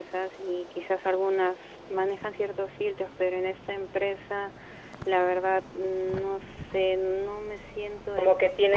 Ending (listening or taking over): taking over